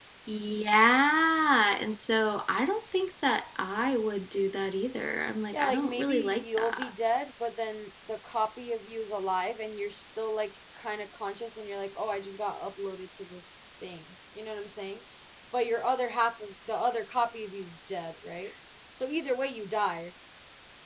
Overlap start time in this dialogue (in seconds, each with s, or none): 5.5 s